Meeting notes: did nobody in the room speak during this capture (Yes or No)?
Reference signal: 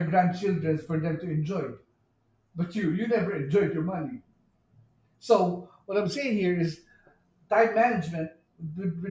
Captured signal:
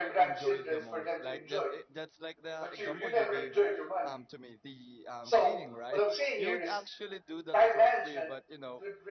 No